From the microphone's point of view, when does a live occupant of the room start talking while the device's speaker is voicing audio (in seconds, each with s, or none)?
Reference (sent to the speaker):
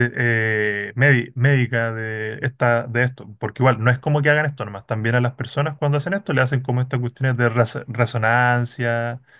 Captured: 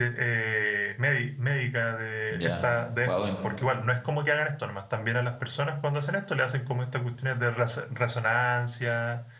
2.3 s